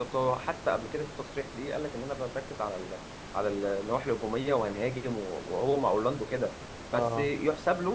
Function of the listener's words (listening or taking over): listening